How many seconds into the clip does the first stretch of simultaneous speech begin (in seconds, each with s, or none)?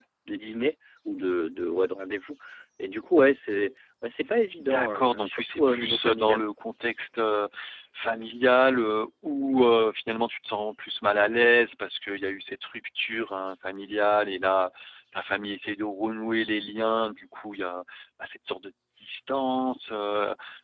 4.6 s